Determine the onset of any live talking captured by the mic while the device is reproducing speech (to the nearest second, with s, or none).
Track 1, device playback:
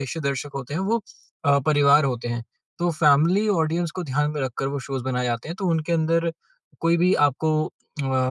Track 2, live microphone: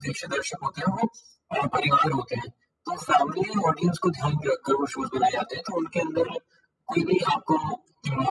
none